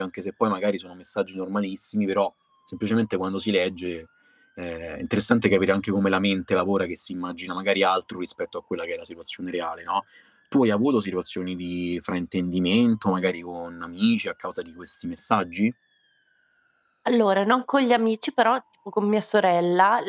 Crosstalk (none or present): none